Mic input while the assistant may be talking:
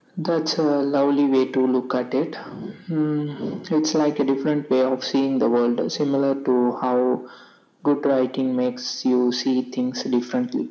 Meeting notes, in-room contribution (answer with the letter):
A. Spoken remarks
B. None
B